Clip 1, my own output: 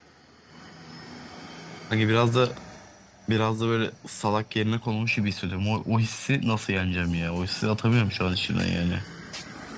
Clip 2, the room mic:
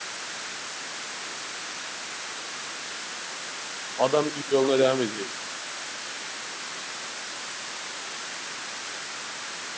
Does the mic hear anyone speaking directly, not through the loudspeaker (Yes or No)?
Yes